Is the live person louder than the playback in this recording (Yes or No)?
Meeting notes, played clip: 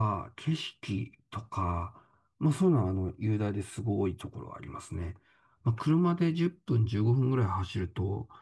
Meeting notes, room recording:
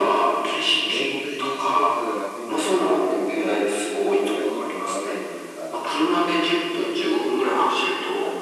No